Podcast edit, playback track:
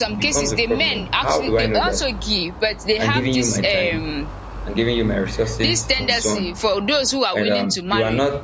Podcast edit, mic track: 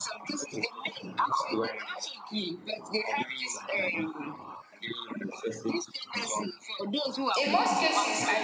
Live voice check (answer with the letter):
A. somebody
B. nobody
A